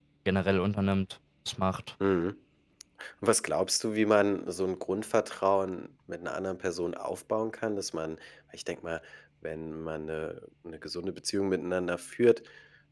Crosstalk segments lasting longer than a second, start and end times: none

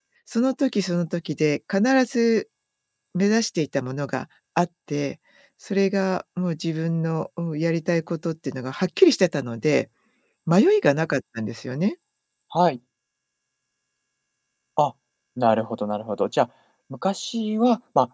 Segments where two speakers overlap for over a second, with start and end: none

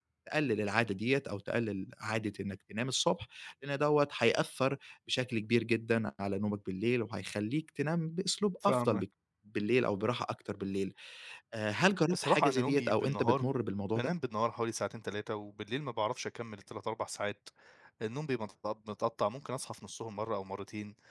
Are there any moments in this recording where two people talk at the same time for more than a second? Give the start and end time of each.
12.1-13.4

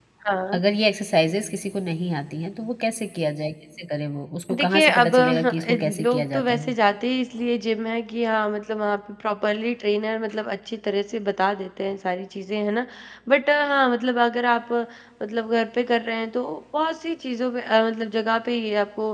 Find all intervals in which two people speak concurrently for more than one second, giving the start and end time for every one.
4.6-6.7

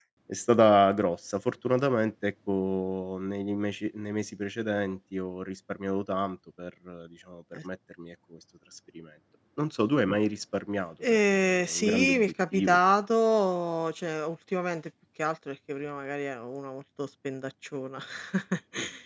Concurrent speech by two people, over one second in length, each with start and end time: 11.0-12.8

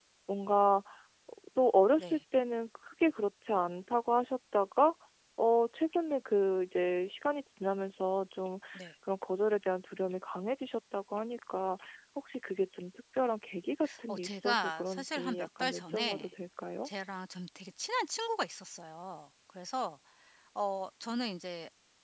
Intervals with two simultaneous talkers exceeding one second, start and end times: 14.1-16.3

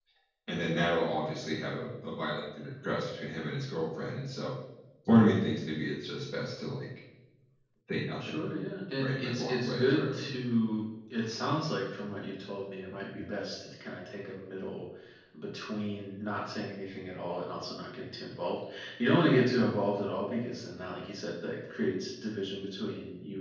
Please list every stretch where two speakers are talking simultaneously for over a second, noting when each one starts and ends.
9.0-10.2

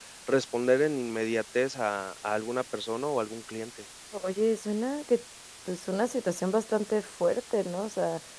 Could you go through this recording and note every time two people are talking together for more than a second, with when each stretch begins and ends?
none

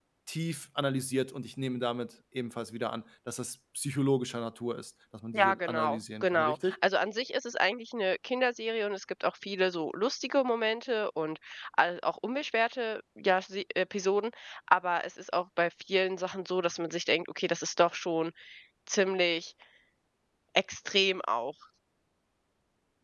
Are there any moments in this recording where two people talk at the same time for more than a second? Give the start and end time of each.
5.3-6.7

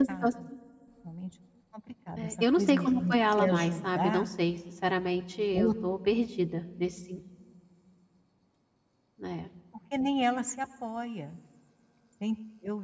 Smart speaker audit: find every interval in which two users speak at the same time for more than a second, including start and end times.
2.2-4.3

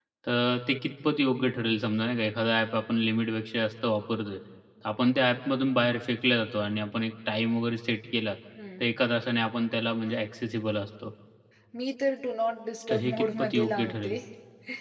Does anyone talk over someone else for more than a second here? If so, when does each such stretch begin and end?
12.9-14.2

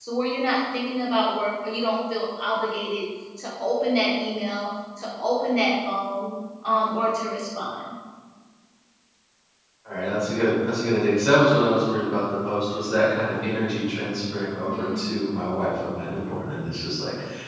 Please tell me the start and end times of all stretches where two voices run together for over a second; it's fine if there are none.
none

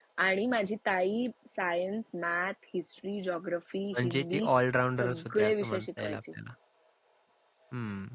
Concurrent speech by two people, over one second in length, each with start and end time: 5.0-6.2

